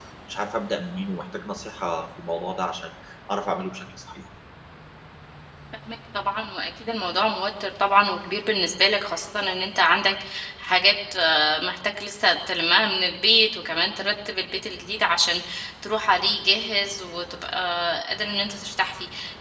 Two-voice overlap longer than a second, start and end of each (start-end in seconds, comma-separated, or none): none